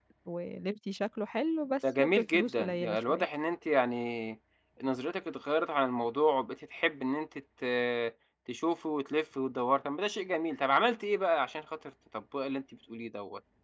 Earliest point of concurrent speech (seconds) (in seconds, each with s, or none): 1.8 s